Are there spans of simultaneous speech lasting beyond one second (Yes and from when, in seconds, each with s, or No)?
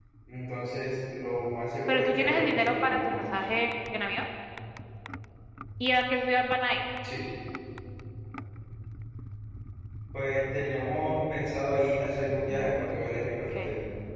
Yes, from 1.9 s